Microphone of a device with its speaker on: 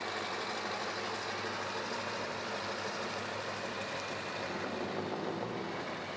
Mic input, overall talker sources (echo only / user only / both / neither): neither